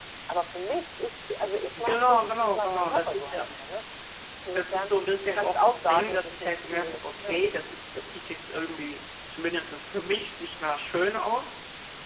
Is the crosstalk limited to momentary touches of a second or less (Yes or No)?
No